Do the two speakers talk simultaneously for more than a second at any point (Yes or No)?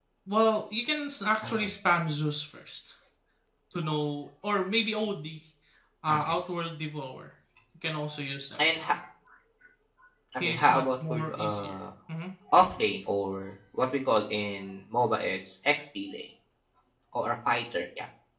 Yes